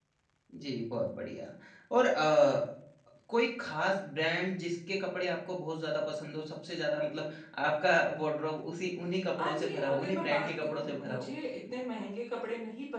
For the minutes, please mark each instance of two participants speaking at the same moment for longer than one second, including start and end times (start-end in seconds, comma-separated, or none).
9.3-11.3